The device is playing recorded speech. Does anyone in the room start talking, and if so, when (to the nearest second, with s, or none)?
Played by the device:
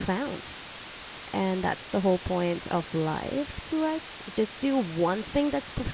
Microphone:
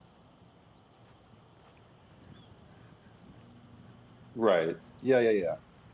4 s